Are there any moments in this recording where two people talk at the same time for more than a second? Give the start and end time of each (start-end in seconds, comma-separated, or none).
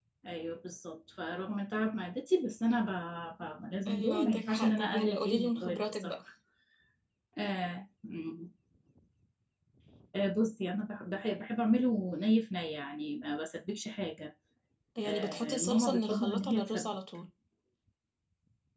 3.9-6.2, 15.0-16.9